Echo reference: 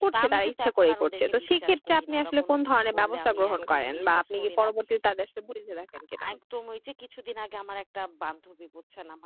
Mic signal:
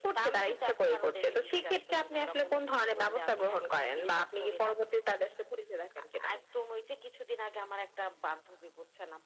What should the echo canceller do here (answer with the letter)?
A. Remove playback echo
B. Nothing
A